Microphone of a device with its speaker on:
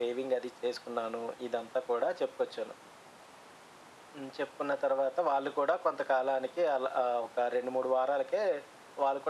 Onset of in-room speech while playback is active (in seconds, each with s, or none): none